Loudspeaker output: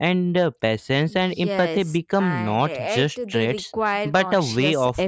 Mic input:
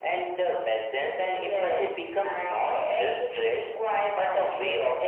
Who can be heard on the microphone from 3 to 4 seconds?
echo only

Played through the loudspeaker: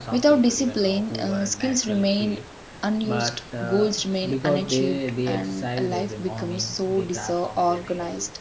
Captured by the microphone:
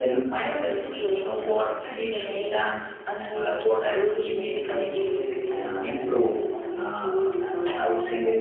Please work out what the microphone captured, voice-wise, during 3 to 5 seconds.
both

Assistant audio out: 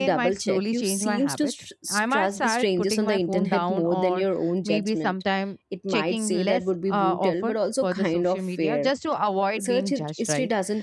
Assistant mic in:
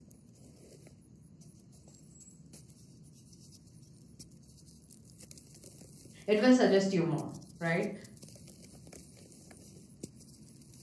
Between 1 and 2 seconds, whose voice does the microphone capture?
neither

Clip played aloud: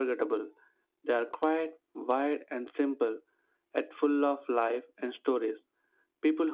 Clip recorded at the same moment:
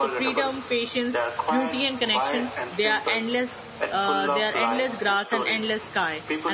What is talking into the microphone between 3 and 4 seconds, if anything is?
both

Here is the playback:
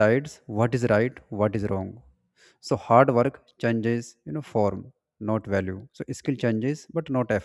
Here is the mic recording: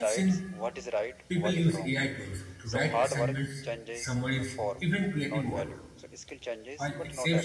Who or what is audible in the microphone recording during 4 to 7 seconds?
both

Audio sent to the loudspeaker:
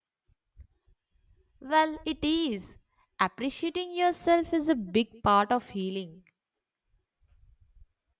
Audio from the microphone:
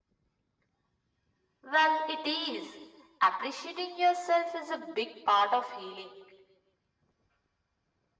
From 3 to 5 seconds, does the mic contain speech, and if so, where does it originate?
echo only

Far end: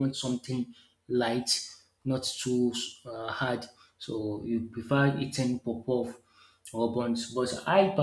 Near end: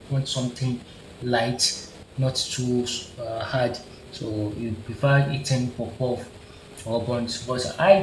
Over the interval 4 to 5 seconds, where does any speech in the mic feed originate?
echo only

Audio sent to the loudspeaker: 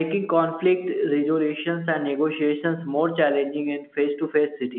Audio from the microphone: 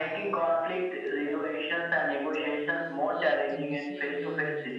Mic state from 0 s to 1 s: both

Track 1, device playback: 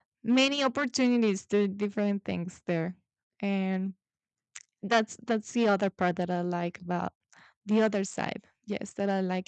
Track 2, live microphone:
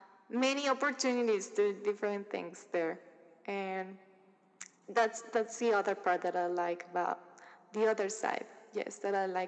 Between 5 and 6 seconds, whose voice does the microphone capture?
echo only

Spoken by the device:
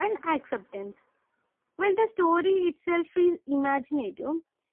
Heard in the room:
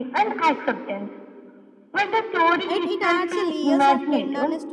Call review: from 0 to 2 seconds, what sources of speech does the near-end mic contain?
echo only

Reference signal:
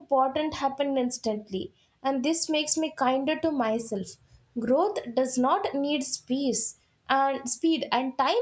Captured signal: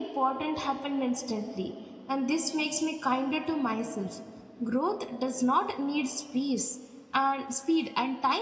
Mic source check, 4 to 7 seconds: echo only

